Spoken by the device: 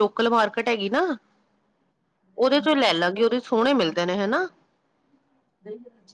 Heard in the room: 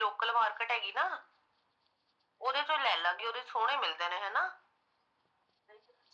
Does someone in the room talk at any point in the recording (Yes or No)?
No